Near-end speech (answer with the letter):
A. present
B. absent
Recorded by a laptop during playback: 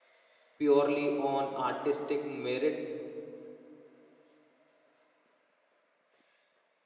A